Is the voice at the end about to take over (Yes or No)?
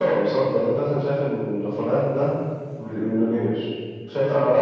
No